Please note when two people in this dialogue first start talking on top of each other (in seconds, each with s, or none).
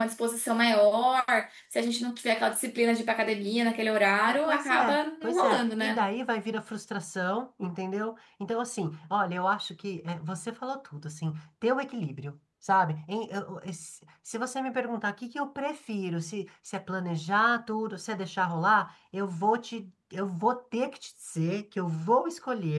4.3 s